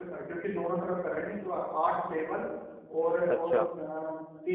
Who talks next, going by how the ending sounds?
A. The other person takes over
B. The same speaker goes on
B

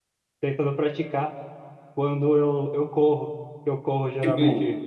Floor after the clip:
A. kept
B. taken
A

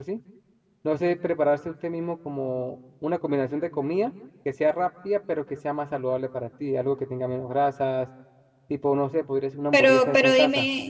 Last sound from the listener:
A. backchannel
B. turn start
B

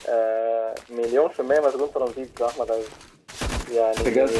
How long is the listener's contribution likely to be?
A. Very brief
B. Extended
A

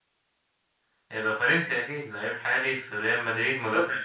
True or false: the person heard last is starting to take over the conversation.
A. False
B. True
A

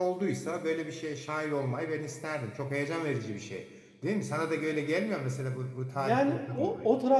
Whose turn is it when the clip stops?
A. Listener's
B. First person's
A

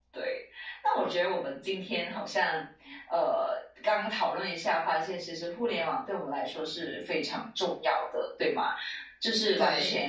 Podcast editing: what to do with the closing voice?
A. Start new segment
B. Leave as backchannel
B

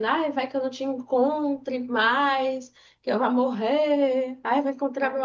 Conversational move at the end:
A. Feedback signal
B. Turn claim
B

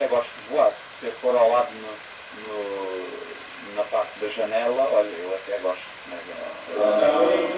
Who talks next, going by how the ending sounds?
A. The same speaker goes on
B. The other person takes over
B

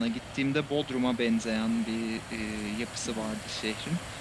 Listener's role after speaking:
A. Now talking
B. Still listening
B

